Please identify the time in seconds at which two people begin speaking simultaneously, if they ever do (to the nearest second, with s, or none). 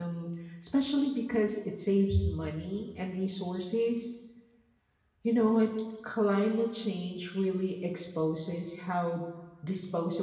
none